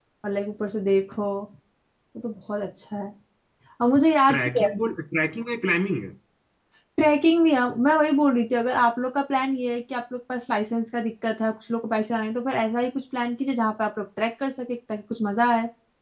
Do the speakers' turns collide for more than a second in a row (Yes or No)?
No